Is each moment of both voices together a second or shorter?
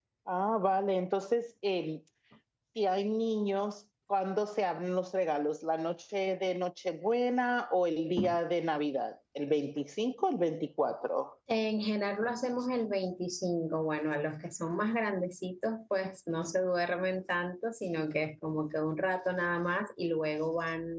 Yes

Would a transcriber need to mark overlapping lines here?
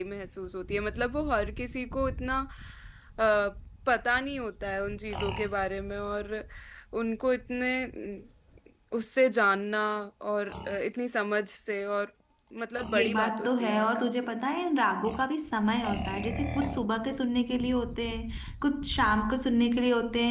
Yes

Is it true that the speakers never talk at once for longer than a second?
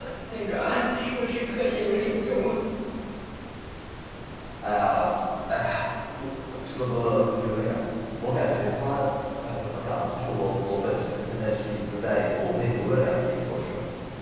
Yes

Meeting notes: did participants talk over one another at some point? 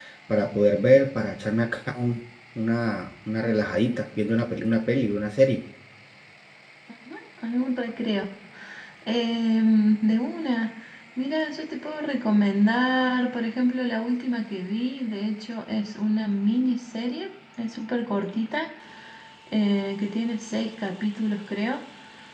No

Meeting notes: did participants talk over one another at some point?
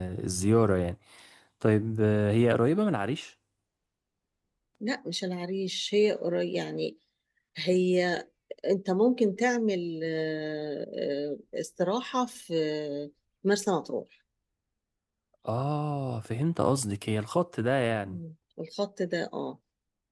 No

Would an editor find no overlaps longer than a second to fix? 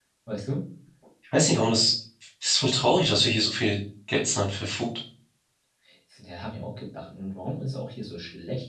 Yes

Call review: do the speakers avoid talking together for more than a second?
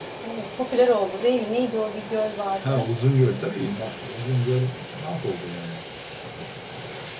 Yes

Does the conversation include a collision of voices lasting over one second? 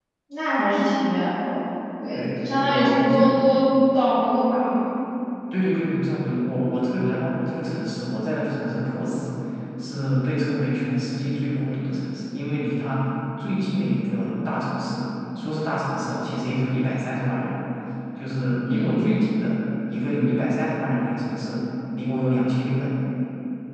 Yes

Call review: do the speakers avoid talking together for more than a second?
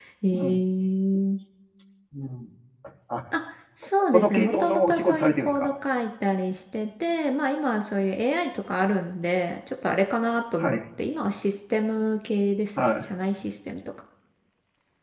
No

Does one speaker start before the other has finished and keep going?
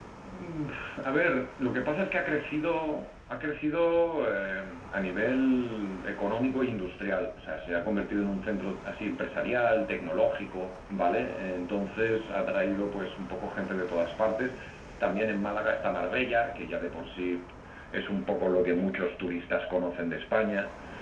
No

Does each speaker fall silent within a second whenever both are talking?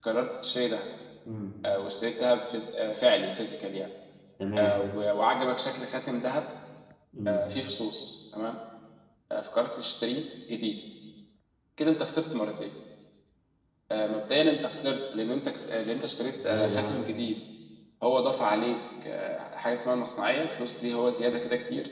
Yes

